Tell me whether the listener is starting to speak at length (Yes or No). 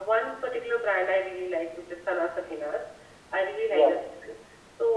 No